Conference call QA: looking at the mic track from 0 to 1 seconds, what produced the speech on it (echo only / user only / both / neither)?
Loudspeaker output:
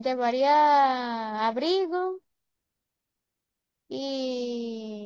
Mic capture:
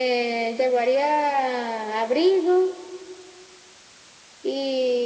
echo only